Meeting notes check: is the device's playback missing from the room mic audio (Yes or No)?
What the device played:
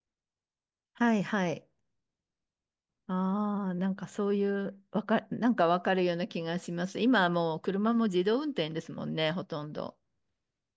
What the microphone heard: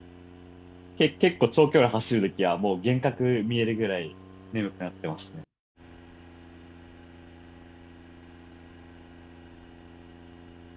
Yes